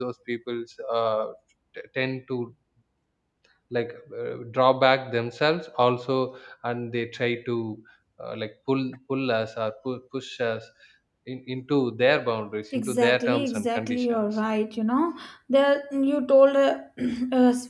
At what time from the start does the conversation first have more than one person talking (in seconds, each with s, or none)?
12.7 s